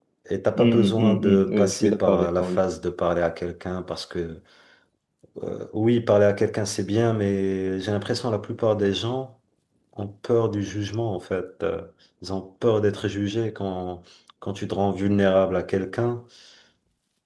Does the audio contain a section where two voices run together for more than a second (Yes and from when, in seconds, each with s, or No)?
Yes, from 0.6 s